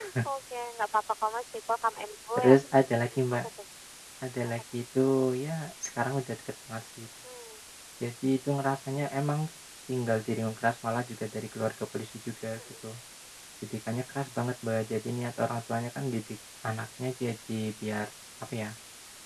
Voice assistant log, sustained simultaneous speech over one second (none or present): none